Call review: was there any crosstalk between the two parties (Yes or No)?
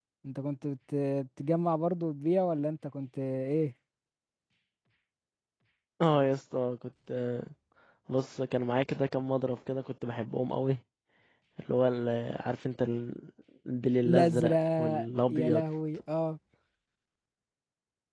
Yes